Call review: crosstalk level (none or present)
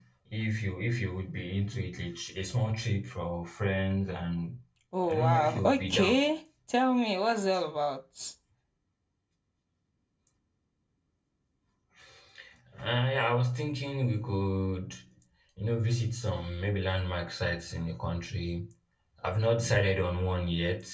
present